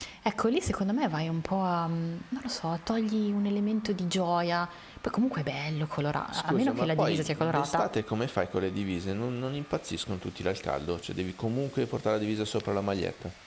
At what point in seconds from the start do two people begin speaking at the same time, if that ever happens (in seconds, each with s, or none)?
6.3 s